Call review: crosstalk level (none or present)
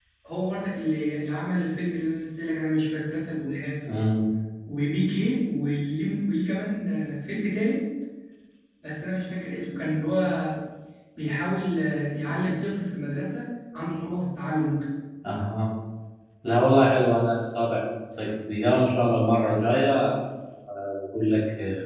none